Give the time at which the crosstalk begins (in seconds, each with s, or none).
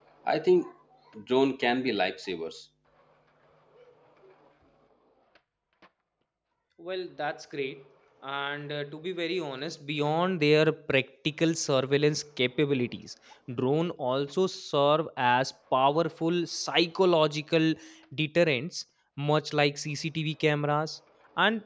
none